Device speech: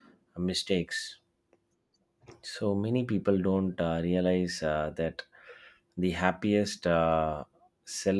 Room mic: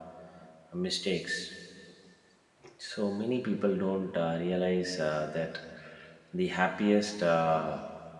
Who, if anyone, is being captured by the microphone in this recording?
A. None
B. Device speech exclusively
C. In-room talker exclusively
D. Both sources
B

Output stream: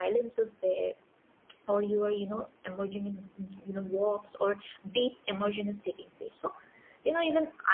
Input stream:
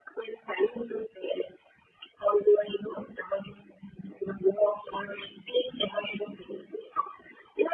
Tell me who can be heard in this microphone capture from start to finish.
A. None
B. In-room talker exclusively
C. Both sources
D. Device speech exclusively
D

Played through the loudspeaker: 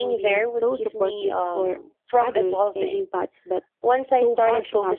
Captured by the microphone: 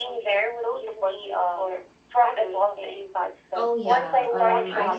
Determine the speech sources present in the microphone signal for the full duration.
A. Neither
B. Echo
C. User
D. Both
D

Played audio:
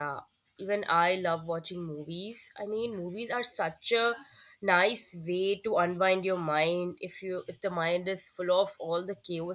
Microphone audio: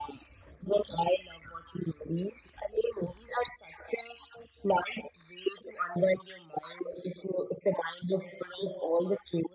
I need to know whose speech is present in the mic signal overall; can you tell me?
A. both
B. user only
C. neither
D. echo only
D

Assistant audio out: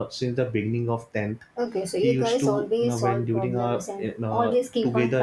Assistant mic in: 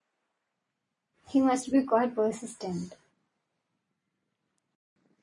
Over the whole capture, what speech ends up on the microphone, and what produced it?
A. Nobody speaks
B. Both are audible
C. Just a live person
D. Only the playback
C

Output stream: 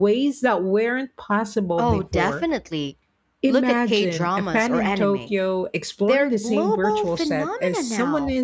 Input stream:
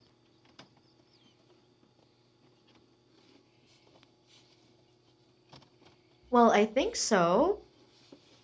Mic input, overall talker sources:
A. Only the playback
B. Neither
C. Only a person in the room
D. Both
C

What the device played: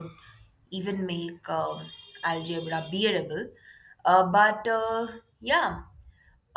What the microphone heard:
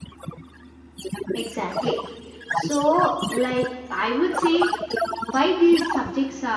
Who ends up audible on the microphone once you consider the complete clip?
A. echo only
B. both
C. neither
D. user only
B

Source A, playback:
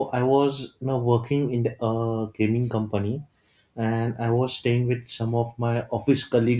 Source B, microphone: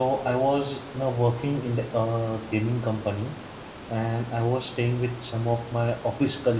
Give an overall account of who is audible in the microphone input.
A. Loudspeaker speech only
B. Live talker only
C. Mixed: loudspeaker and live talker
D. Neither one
A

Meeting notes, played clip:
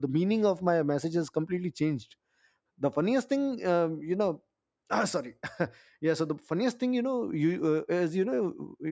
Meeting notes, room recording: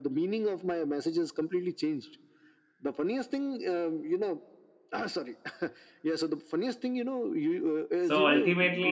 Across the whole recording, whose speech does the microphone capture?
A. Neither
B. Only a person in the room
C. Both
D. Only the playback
C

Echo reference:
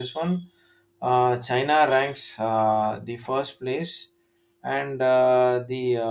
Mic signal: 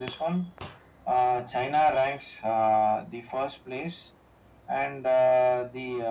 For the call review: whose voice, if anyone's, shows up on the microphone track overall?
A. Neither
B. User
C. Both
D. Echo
D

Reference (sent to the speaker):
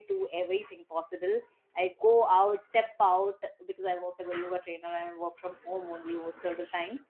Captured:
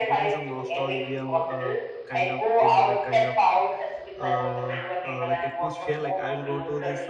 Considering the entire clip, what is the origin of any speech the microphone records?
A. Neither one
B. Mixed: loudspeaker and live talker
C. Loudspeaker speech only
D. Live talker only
B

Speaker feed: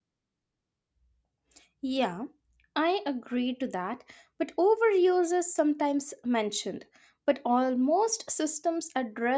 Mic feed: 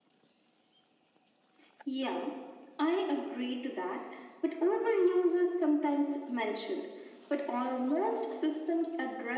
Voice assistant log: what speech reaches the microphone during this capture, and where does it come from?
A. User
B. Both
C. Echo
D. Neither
C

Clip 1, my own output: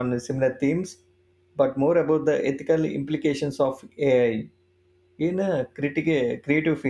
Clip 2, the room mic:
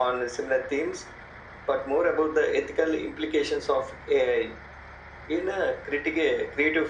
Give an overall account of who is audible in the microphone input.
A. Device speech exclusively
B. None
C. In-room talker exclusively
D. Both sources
A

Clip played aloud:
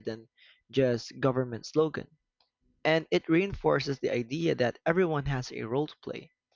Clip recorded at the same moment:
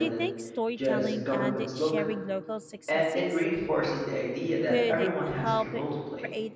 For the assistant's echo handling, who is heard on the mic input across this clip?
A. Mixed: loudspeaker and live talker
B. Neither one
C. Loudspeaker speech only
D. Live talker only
A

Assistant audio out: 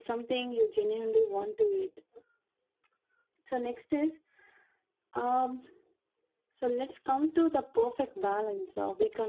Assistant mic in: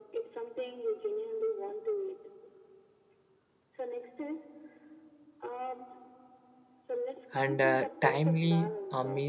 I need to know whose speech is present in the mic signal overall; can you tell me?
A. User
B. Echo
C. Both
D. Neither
C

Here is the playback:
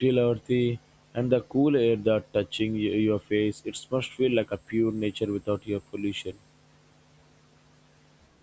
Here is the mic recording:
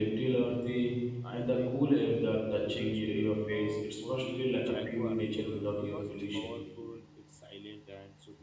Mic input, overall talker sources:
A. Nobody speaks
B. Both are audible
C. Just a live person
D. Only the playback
B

